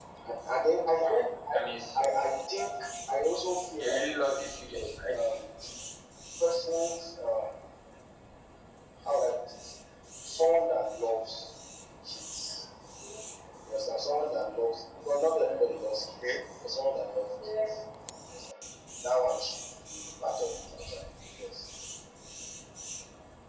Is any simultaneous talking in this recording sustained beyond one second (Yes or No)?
No